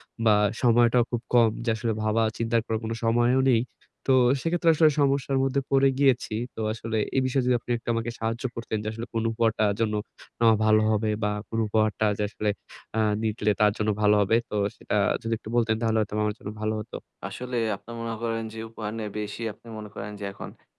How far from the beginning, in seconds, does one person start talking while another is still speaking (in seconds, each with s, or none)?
none